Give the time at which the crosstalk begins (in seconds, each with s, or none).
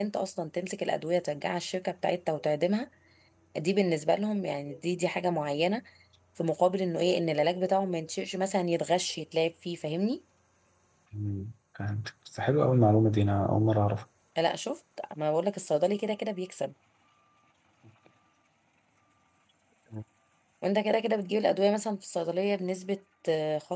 none